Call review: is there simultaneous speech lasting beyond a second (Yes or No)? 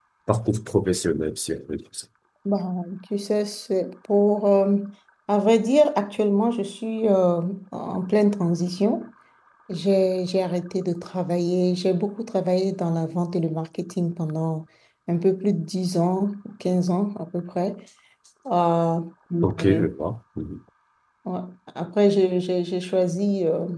No